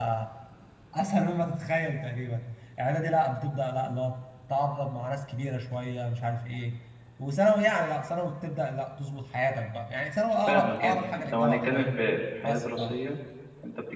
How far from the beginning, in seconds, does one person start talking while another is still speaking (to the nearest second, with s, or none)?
10 s